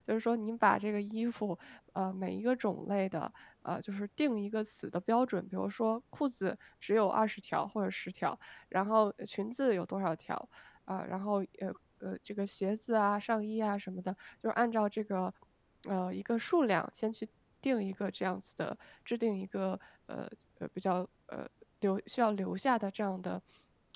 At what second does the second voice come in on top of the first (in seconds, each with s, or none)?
none